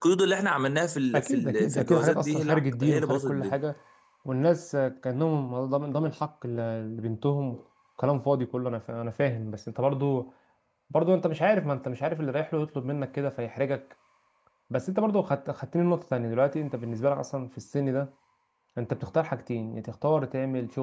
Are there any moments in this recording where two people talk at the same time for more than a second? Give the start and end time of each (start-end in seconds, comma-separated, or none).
1.1-3.6